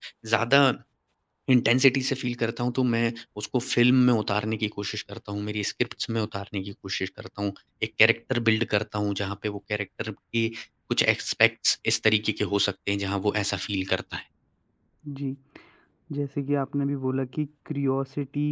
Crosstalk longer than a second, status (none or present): none